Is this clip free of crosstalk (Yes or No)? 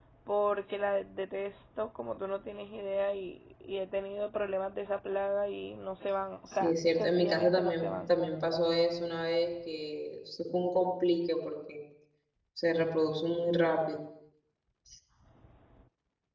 No